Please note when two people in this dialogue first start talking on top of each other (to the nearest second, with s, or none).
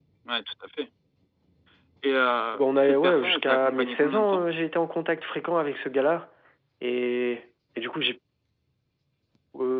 3 s